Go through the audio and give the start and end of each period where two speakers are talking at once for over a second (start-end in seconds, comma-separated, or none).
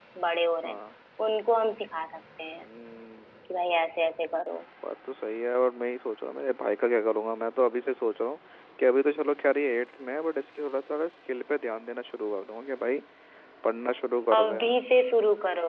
none